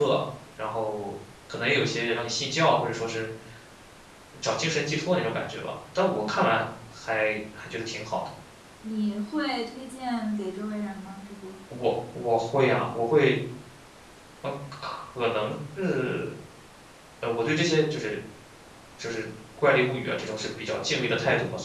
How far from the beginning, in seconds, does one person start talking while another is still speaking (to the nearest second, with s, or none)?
none